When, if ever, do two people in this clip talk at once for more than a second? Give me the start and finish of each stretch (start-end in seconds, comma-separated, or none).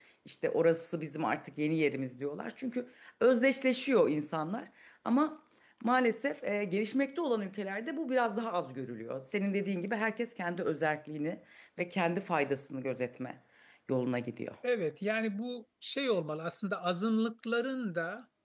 none